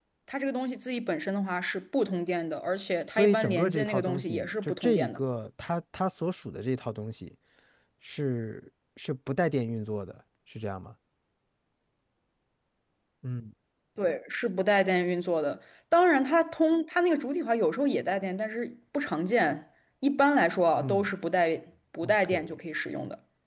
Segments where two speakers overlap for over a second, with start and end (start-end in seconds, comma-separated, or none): 3.1-5.2